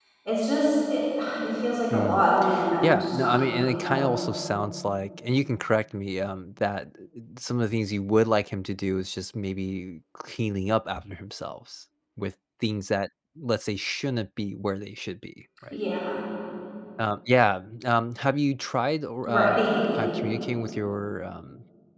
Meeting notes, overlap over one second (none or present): present